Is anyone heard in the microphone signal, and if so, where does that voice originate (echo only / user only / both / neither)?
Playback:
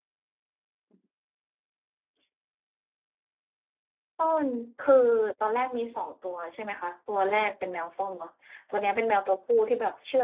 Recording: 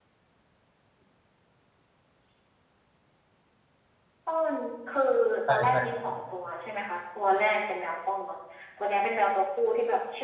both